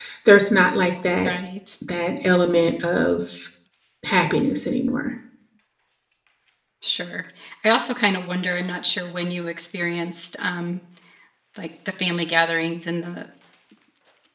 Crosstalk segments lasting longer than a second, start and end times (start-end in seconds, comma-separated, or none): none